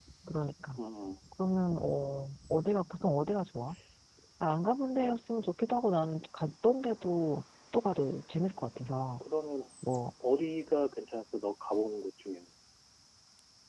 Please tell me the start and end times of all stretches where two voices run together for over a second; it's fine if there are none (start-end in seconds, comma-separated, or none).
none